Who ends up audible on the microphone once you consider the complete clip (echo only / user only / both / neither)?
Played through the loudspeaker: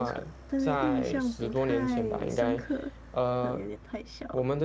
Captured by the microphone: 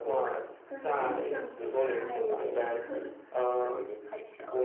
echo only